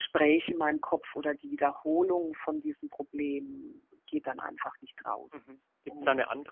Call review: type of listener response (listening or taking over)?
taking over